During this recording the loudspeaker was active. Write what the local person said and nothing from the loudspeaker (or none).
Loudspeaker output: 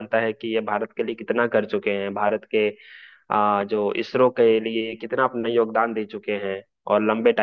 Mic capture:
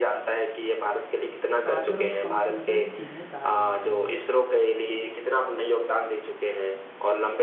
फादर ऑफ कंप्यूटर किन्हें कहा जाता है